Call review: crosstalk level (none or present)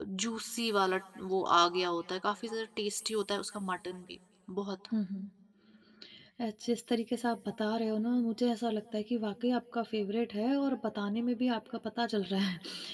none